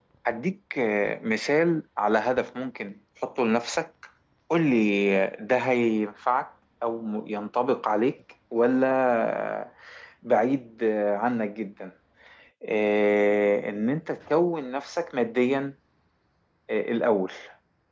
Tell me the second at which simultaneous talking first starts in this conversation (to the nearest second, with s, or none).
none